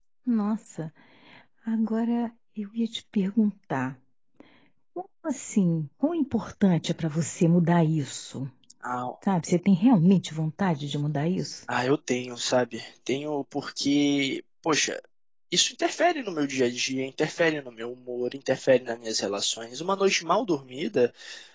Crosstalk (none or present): none